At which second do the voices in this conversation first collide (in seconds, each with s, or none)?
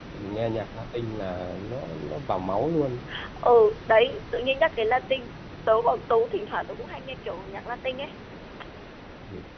none